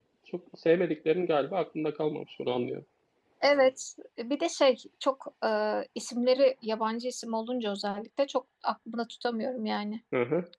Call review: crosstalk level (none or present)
none